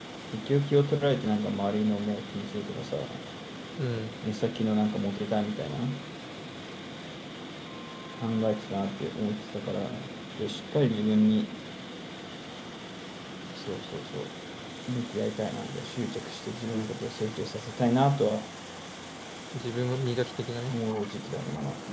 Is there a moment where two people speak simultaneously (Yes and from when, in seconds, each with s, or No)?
No